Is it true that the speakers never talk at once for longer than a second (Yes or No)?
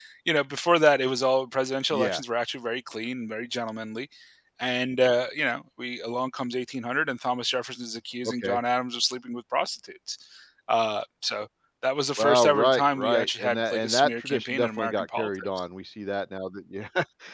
No